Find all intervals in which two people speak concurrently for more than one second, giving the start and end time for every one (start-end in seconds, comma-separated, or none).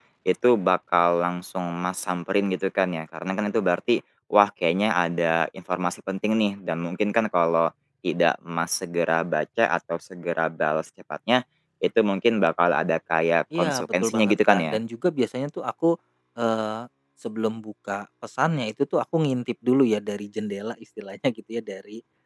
13.6-14.8